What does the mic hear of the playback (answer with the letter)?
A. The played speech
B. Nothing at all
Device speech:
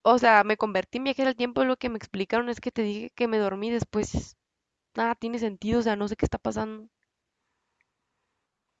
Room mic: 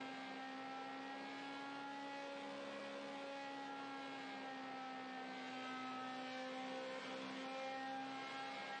B